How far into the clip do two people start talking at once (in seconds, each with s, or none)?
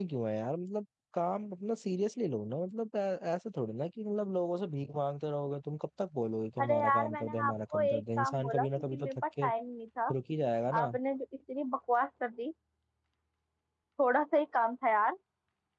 6.6 s